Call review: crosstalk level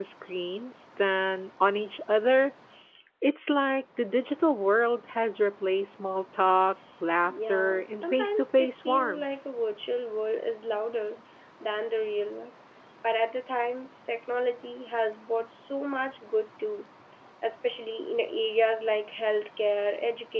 present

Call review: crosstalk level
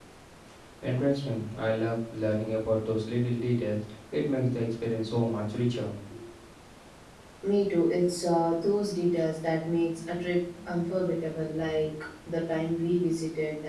none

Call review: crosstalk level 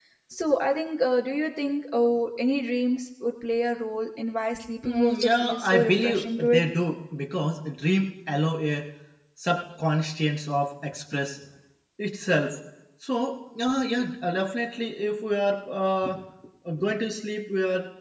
present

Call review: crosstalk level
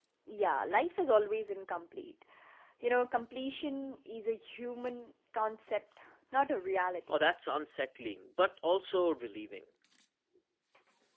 none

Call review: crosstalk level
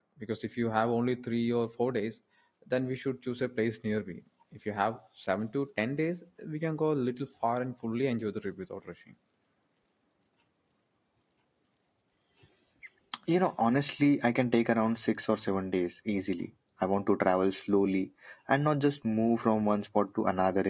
none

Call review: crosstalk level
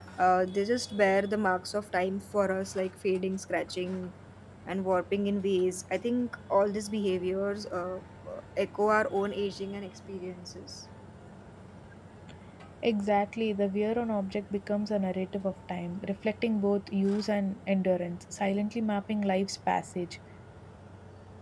none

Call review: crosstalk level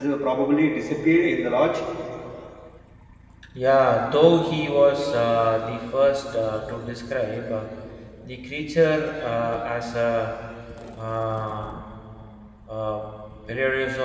none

